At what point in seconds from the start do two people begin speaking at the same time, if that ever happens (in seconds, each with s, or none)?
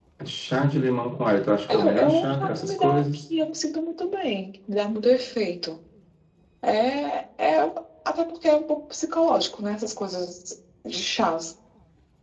1.7 s